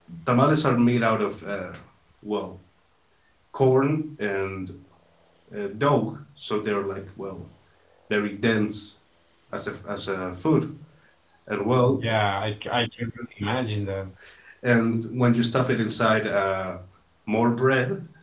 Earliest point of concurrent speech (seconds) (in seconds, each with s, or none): none